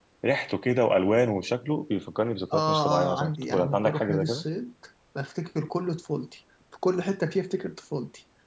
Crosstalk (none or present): present